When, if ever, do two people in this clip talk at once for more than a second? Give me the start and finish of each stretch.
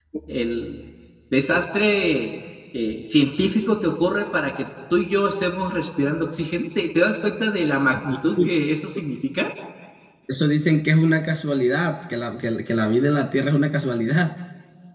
none

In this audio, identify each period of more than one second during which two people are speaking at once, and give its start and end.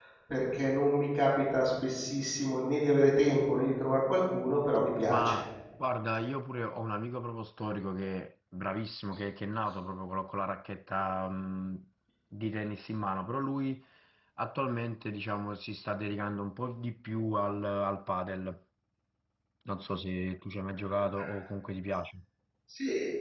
none

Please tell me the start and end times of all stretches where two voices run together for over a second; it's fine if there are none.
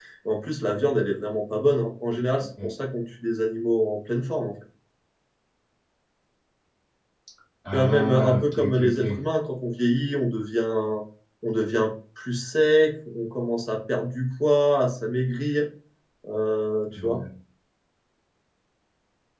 7.7-9.0

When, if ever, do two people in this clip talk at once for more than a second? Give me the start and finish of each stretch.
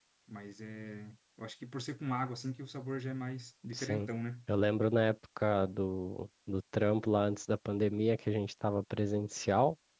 none

